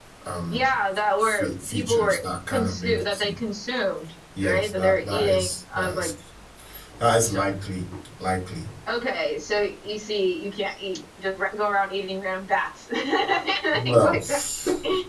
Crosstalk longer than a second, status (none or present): present